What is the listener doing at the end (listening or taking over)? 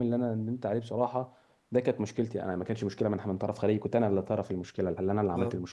listening